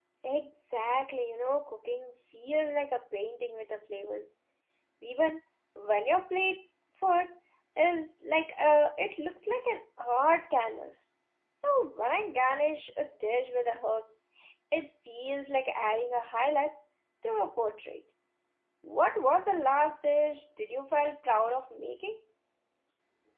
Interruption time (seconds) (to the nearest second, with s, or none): none